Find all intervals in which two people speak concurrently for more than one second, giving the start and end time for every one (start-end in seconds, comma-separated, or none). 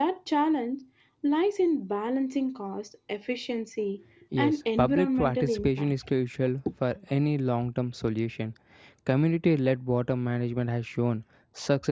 4.4-5.9